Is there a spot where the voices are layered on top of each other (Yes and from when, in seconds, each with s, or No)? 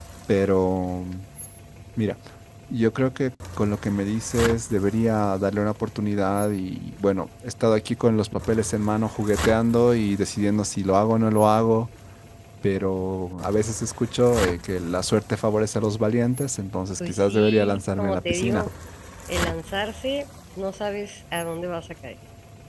Yes, from 17.0 s